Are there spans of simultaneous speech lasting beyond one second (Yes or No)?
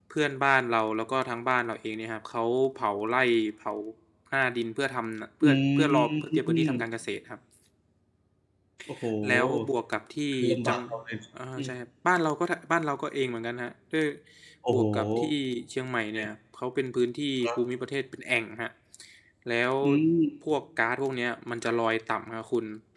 Yes